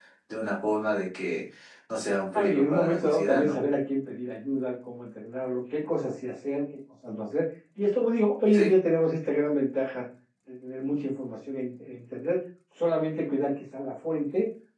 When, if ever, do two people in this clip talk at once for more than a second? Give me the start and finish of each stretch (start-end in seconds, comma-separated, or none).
2.3-3.6